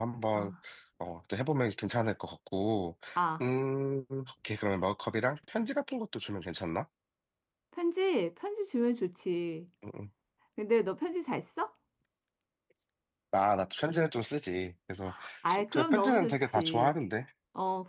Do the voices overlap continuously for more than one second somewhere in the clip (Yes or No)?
Yes